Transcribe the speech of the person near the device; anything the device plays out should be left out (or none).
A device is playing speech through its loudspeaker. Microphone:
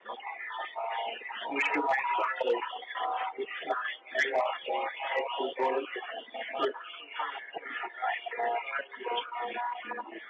none